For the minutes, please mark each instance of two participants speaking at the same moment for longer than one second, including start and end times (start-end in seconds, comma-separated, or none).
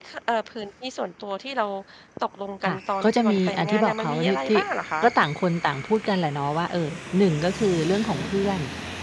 2.6-4.6